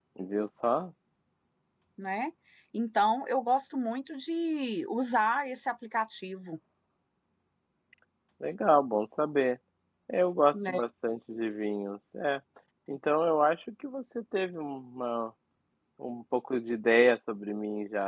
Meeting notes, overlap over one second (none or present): none